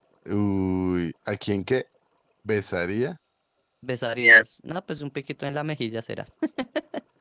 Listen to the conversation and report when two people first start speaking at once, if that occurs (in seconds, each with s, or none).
none